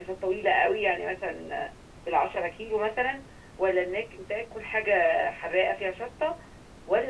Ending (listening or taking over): listening